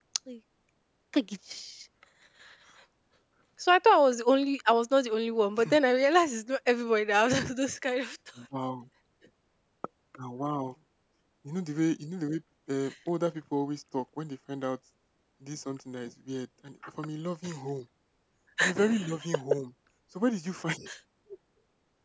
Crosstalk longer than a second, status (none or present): none